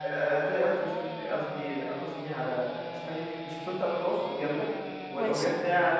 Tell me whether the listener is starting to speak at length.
No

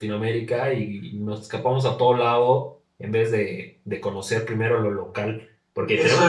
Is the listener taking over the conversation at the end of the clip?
Yes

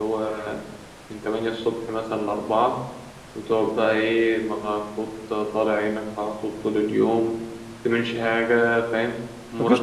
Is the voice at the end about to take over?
No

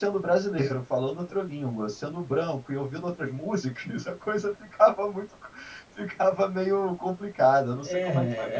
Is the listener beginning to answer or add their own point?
Yes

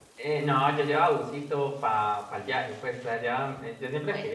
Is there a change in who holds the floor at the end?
No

